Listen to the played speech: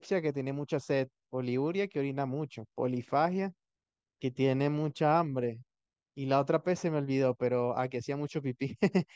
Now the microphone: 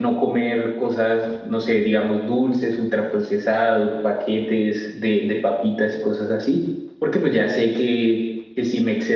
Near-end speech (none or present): present